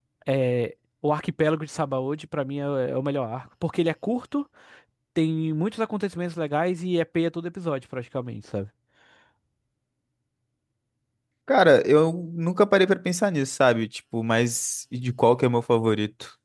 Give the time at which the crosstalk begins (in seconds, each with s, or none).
none